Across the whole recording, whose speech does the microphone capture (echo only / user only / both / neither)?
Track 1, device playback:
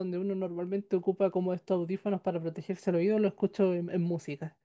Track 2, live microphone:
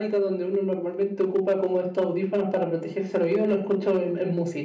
echo only